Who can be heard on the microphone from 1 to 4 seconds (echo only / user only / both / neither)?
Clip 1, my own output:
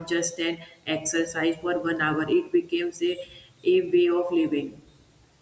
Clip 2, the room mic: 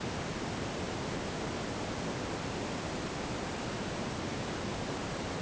neither